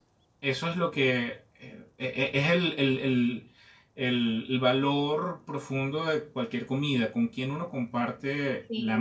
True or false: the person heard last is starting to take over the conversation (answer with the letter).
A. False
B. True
B